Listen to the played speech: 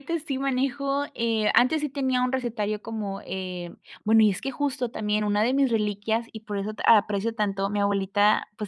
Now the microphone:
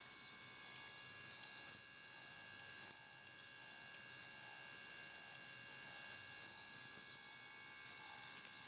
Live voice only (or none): none